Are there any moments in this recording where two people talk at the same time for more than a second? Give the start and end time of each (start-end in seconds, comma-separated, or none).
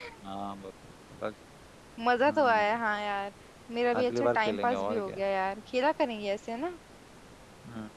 4.0-5.2